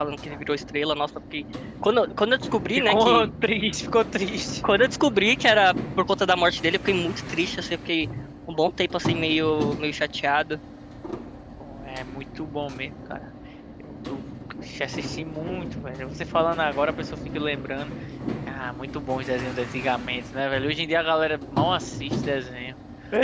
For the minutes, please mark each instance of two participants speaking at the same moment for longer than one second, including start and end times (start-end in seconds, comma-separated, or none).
none